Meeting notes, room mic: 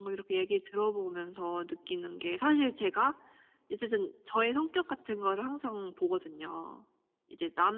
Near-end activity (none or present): none